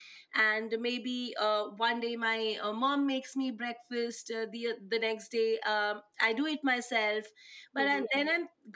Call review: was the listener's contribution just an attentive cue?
Yes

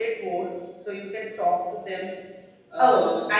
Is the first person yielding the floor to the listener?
Yes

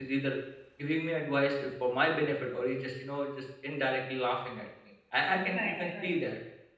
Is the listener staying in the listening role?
Yes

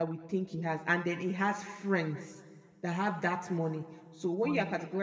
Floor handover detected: No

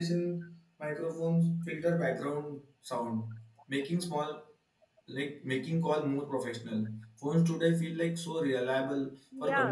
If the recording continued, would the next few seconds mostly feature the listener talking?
Yes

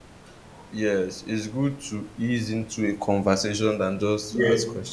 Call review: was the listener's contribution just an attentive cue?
No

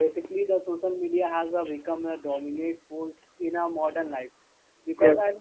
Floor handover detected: No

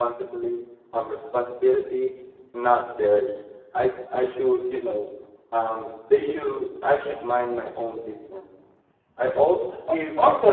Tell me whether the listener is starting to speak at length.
Yes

